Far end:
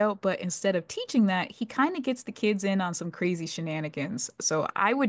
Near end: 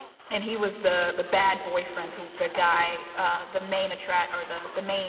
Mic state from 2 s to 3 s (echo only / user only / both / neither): user only